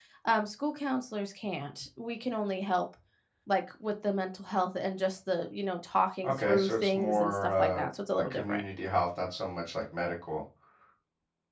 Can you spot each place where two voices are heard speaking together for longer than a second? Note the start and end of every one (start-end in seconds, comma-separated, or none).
6.2-8.6